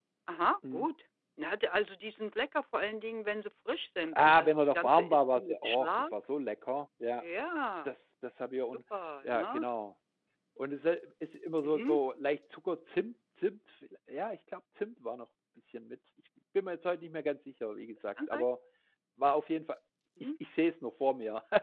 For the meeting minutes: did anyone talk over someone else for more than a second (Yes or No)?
Yes